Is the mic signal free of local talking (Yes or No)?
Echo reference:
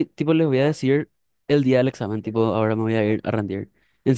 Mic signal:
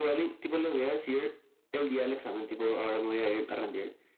Yes